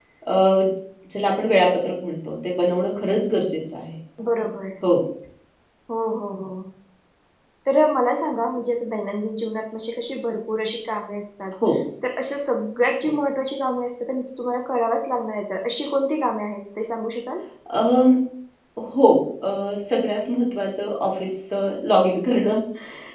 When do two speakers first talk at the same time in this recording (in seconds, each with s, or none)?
none